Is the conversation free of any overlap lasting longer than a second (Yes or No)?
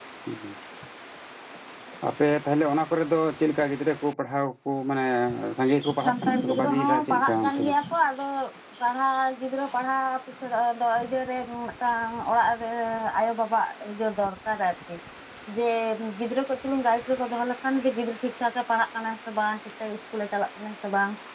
No